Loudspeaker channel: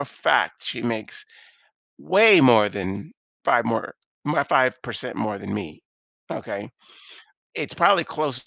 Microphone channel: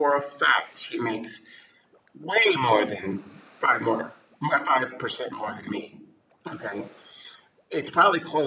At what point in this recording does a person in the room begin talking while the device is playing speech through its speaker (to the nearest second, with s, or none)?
none